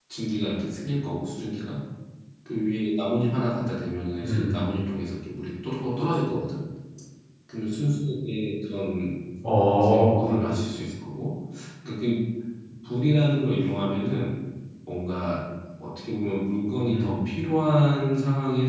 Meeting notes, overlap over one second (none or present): none